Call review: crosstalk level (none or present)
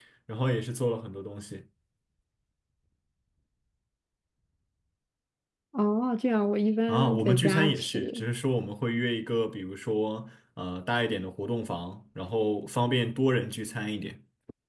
present